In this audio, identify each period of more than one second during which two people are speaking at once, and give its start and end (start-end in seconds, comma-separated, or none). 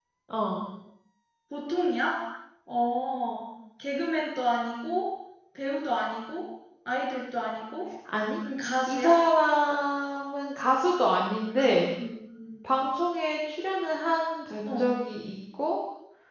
none